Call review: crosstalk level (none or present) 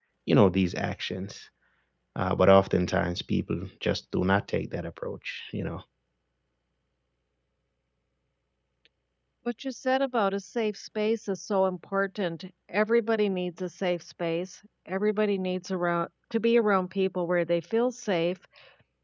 none